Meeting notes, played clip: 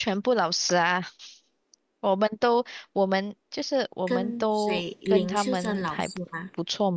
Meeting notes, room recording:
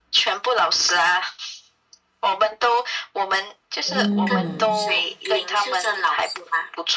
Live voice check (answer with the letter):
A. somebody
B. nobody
A